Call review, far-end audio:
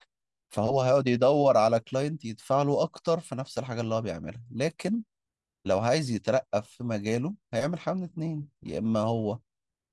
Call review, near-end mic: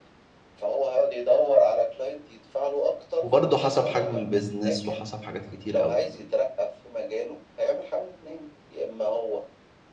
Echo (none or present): present